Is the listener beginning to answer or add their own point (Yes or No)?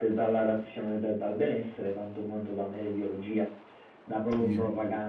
No